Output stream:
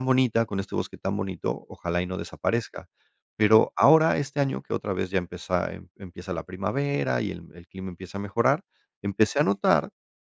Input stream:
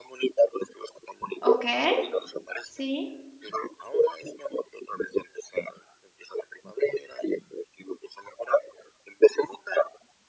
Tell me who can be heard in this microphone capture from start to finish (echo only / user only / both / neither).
both